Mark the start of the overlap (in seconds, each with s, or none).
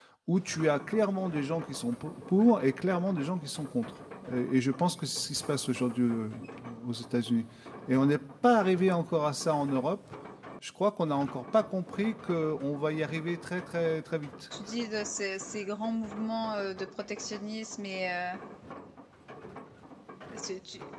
none